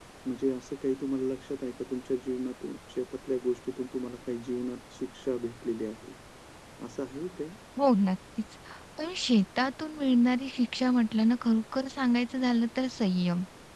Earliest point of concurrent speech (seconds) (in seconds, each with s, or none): none